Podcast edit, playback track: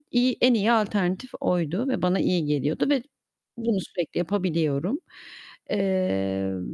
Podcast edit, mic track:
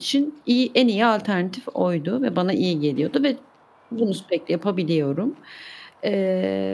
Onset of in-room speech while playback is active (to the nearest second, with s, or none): none